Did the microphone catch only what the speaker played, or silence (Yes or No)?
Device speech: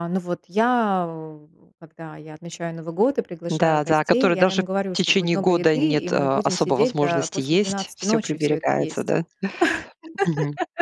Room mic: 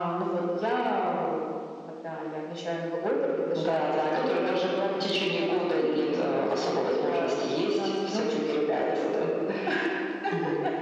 Yes